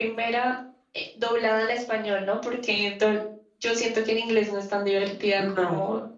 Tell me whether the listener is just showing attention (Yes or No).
Yes